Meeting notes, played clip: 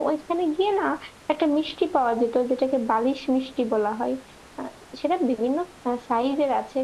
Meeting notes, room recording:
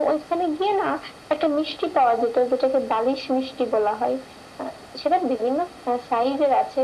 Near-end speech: none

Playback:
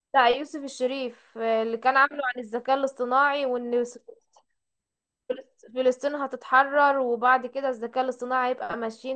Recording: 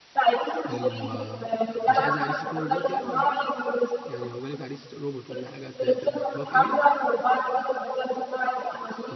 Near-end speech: present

